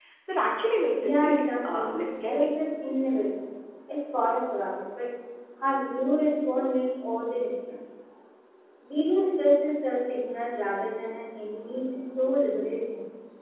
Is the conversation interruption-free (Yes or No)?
No